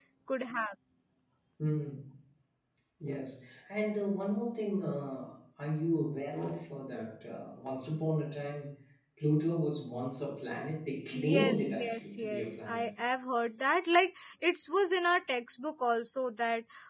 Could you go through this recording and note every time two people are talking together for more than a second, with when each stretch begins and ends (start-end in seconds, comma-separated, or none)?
11.1-12.9